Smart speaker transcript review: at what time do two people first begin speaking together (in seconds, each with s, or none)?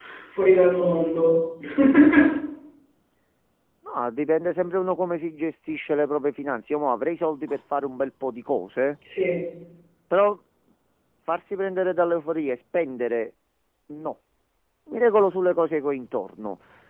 none